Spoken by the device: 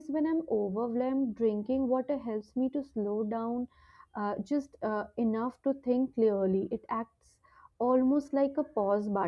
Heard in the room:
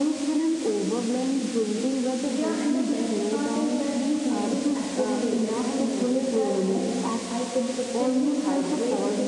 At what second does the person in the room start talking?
2.3 s

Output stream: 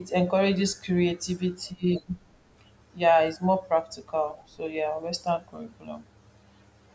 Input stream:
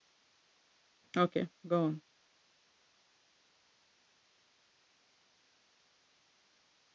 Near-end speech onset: 1.1 s

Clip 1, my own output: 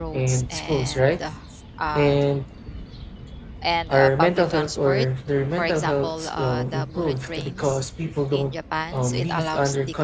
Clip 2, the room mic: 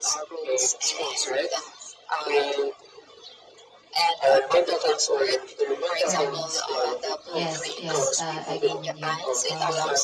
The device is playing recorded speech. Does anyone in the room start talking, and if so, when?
6.0 s

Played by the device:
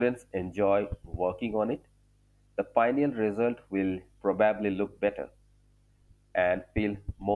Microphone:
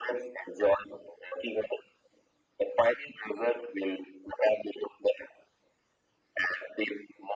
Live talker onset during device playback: none

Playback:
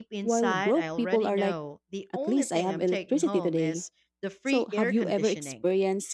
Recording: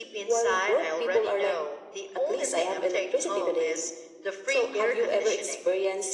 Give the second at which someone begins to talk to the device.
none

